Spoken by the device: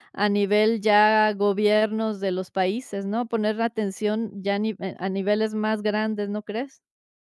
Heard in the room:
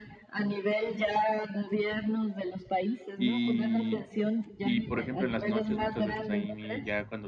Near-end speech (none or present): present